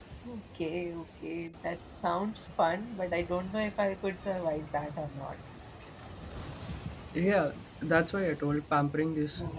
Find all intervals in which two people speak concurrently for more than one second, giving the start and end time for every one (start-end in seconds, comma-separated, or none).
none